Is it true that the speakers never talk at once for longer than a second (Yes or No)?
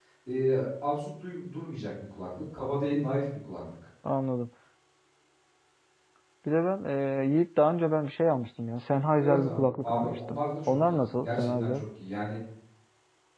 No